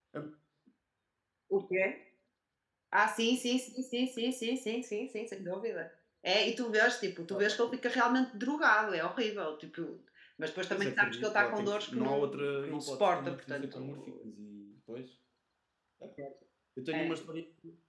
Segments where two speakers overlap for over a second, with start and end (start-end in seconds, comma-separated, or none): 10.7-14.1